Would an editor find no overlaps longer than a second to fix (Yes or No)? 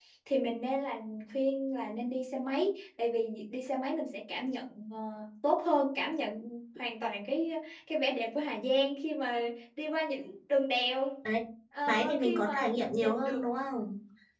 No